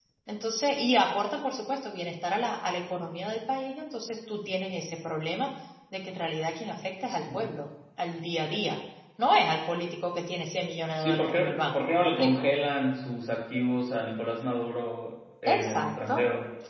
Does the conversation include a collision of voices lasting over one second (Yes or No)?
Yes